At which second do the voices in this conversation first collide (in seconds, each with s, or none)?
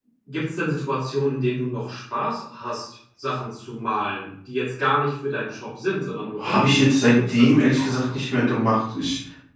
6.4 s